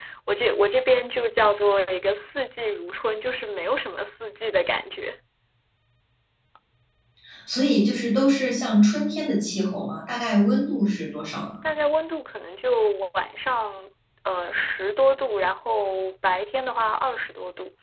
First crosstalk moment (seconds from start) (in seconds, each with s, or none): none